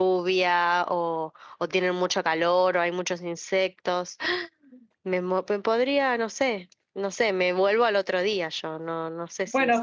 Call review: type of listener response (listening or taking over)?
taking over